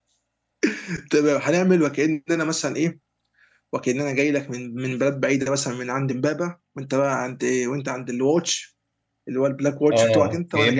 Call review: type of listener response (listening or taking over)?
taking over